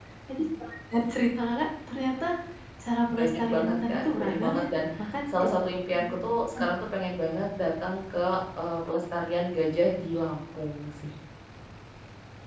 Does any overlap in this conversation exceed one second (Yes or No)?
Yes